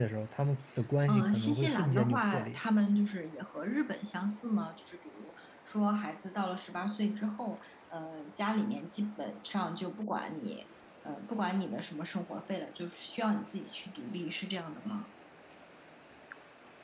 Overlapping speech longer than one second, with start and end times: 1.1-2.6

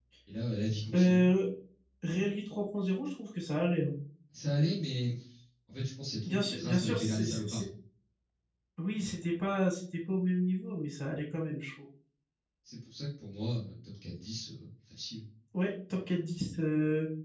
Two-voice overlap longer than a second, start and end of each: 6.2-7.6

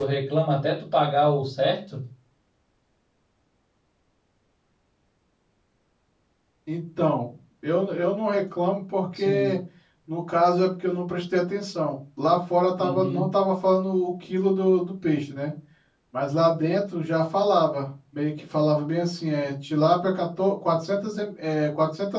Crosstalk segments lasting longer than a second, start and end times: none

